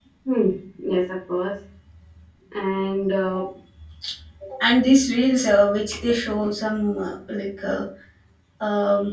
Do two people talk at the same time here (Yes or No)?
No